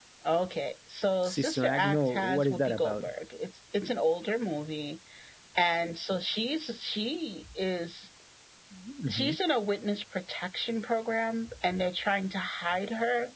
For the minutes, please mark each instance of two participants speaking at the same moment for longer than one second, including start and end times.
1.2-3.1

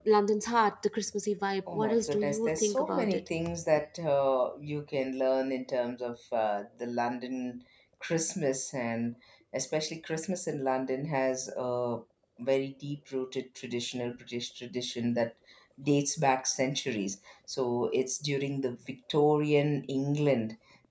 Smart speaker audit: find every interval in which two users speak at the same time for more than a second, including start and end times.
1.7-3.2

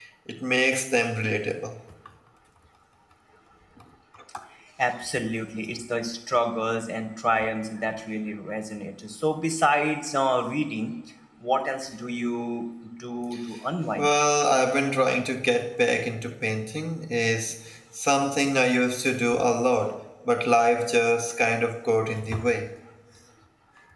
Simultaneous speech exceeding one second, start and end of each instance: none

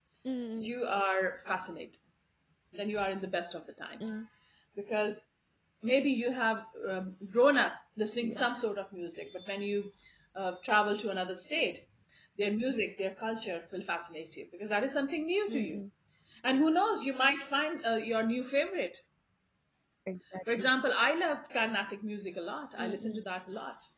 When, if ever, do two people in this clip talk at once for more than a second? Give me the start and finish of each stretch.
none

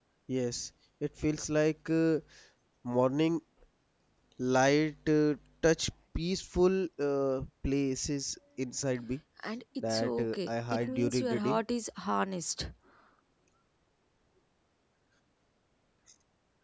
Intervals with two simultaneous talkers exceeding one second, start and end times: 9.9-11.6

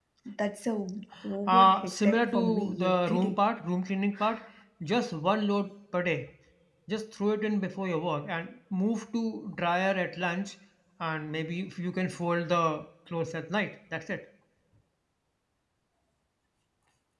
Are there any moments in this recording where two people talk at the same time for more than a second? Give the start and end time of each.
1.5-3.3

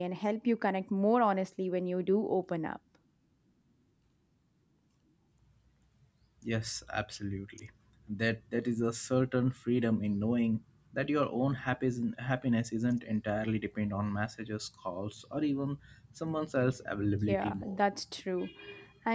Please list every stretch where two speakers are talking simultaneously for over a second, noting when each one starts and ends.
none

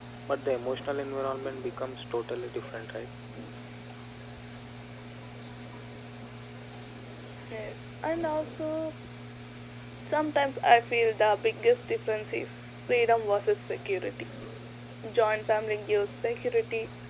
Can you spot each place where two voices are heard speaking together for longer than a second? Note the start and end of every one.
none

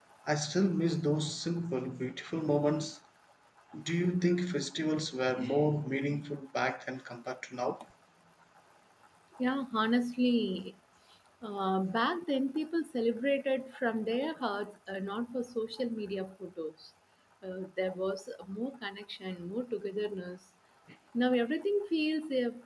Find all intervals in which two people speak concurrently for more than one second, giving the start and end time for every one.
none

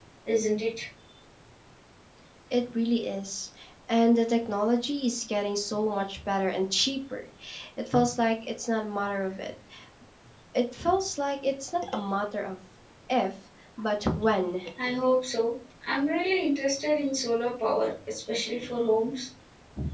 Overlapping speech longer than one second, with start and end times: none

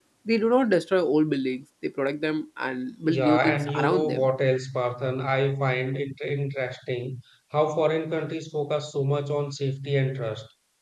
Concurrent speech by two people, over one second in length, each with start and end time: 3.0-4.3

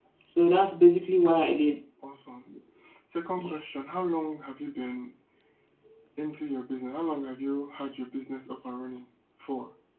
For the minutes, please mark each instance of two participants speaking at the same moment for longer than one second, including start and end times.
none

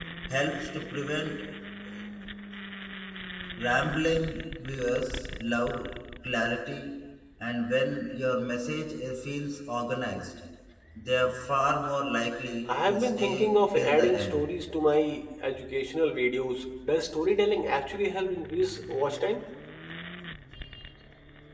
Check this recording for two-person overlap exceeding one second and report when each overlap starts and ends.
12.9-14.4

